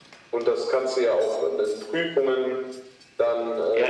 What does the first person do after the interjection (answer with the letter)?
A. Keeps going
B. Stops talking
B